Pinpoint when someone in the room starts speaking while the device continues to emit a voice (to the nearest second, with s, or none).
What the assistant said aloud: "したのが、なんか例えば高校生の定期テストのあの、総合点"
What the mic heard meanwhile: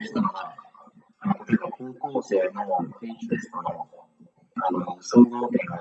none